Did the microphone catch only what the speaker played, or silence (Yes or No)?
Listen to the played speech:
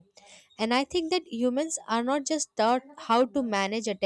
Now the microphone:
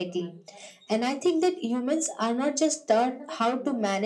Yes